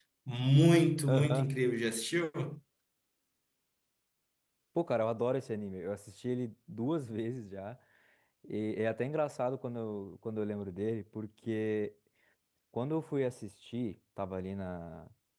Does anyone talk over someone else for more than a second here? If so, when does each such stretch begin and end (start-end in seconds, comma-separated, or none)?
none